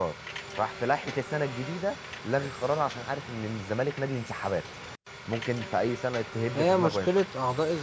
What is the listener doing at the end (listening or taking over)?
taking over